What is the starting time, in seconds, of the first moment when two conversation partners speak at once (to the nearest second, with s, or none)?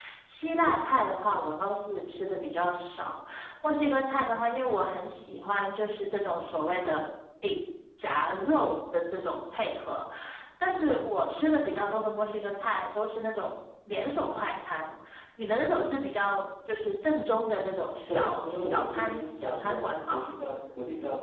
18 s